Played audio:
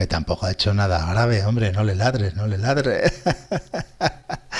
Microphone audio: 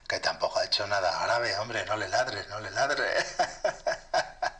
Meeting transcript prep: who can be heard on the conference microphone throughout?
echo only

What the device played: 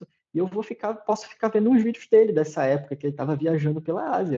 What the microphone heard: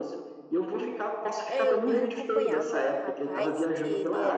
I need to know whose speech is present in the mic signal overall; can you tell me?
both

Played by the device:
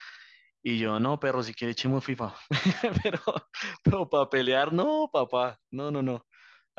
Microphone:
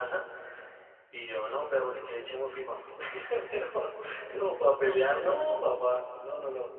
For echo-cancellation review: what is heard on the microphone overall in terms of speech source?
echo only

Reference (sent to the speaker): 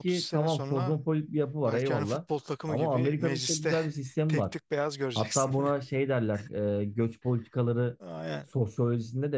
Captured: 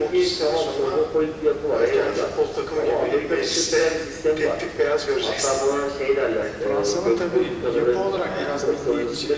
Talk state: both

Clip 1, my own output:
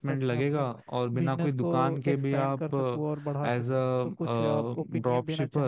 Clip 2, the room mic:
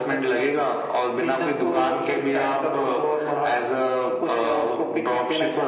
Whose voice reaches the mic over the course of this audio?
echo only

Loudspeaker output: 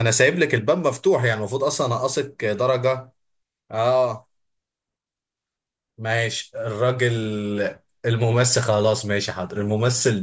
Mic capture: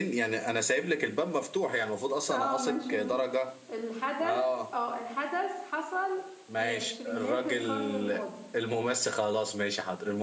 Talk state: both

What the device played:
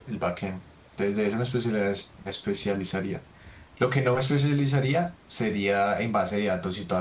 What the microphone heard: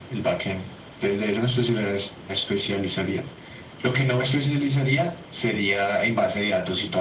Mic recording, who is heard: echo only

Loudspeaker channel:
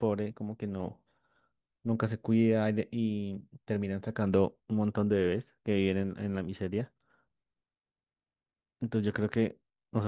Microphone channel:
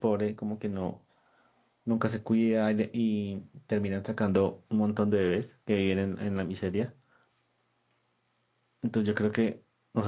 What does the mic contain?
echo only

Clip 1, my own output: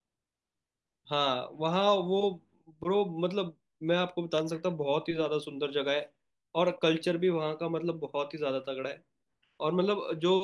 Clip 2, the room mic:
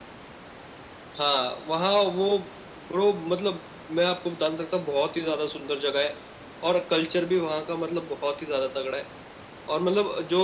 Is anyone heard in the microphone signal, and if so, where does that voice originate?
echo only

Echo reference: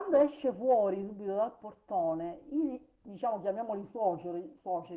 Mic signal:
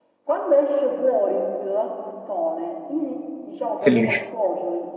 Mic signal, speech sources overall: both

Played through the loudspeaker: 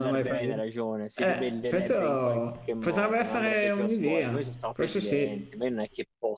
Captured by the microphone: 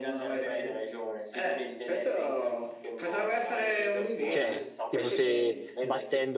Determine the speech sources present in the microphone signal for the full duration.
both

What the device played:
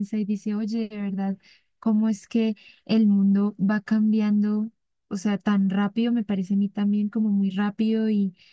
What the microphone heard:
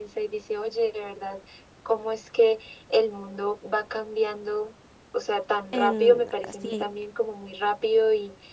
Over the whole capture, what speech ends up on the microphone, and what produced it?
both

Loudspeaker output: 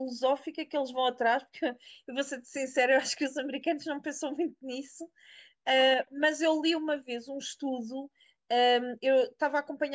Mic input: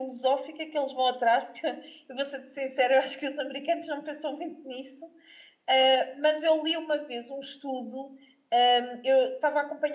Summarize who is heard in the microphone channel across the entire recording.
echo only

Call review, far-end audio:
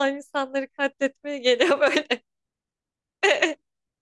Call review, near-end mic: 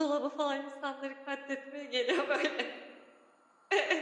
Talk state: echo only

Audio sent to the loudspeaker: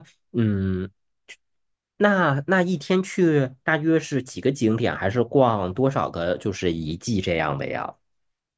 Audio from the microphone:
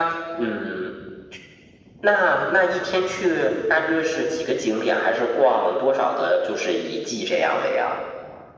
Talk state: echo only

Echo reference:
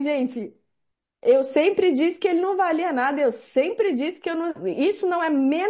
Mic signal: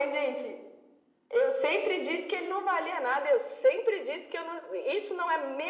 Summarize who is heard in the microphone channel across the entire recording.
echo only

